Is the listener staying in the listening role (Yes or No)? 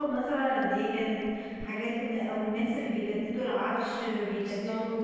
Yes